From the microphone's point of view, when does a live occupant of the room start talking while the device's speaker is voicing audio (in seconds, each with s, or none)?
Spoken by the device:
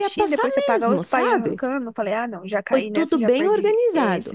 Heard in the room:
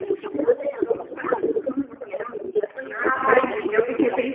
2.9 s